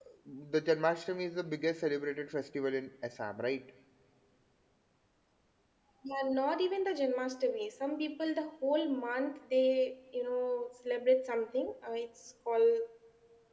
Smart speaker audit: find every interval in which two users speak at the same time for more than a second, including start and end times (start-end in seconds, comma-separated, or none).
none